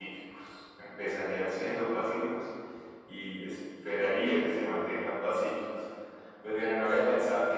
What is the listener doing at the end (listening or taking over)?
listening